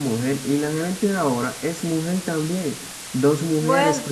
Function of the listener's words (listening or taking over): listening